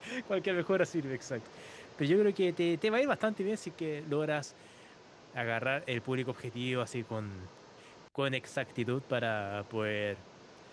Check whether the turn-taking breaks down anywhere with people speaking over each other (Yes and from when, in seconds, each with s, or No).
No